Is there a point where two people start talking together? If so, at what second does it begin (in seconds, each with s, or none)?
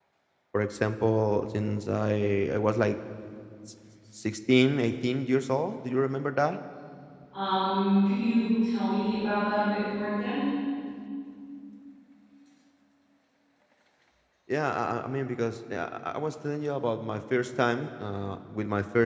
none